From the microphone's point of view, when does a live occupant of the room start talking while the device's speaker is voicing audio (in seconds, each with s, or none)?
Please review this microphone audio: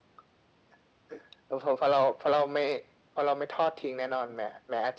none